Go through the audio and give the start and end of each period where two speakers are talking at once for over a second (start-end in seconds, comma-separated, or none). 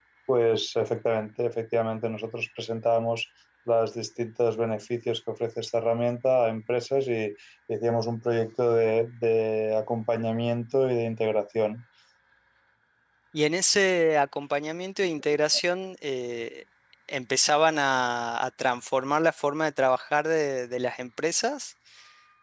none